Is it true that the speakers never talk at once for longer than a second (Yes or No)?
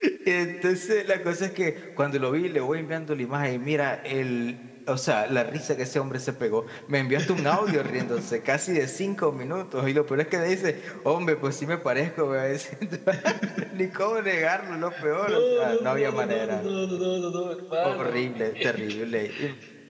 No